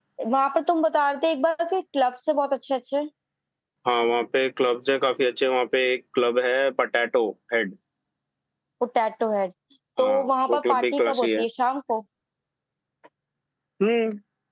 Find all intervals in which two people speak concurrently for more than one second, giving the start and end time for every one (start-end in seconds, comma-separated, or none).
10.0-11.4